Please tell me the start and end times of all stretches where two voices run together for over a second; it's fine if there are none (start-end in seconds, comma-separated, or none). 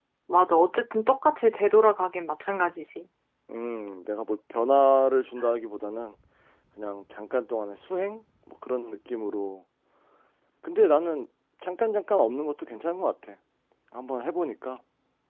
none